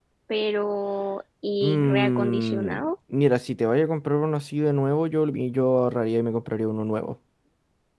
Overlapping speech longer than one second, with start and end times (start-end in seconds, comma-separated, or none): 1.6-2.9